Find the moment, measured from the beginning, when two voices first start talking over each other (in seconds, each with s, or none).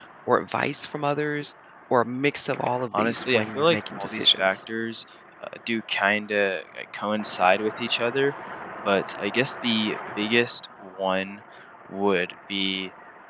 2.9 s